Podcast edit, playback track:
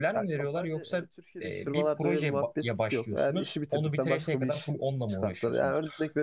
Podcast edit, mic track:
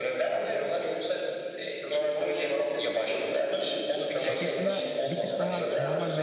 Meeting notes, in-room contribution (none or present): present